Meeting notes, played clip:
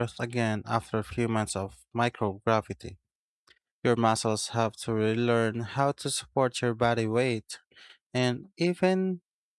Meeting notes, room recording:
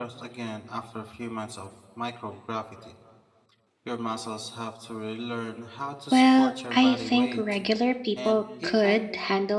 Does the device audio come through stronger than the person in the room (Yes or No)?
No